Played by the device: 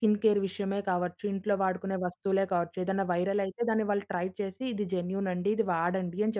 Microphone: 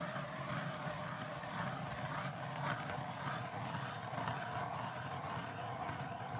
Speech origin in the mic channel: neither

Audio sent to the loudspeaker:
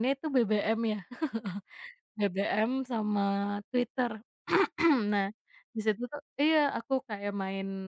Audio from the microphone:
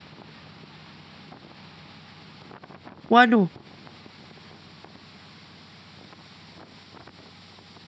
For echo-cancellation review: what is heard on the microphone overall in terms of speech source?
user only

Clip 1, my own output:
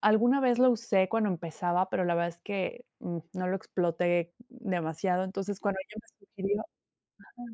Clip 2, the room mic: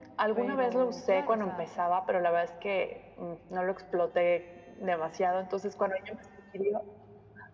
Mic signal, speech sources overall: both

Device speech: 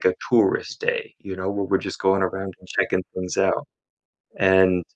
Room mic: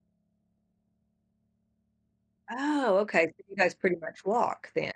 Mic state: user only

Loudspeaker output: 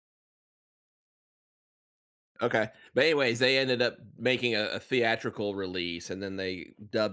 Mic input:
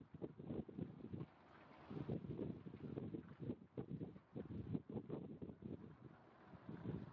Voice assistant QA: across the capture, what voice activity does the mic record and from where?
neither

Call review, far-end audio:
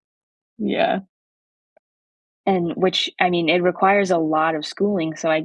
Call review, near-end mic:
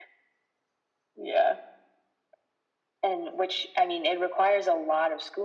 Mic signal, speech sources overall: echo only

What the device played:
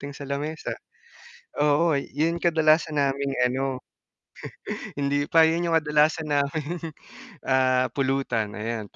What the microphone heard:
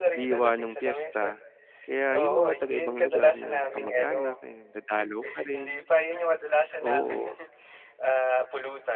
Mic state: both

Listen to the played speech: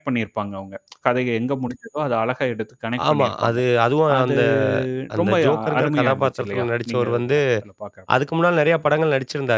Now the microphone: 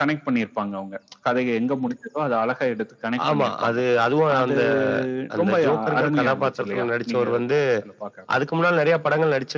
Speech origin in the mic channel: echo only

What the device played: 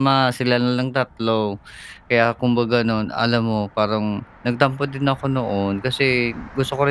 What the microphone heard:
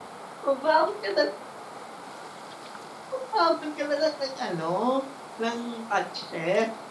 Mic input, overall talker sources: user only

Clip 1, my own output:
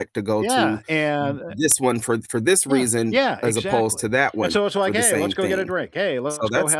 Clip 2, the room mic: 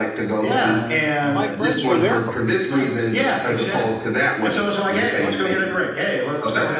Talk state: both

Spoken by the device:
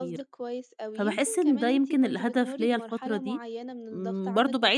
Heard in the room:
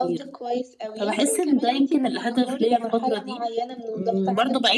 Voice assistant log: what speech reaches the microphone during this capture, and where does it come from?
echo only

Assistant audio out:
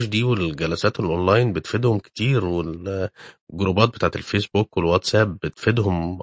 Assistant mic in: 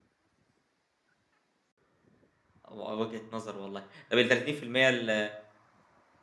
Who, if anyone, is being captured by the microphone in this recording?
user only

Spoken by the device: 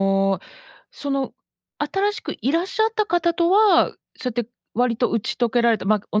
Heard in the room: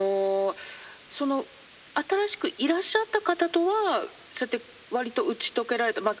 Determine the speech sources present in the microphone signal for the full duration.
echo only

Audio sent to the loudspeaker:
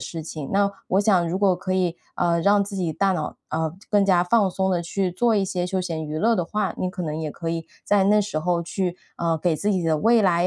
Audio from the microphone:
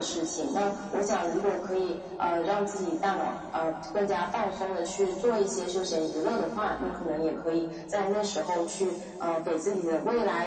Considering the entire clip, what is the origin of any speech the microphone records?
echo only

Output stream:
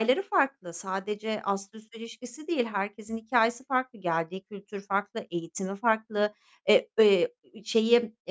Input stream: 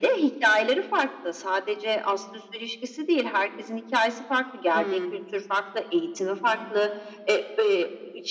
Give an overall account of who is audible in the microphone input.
both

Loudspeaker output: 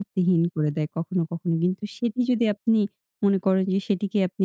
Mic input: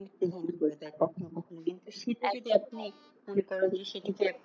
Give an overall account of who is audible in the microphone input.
both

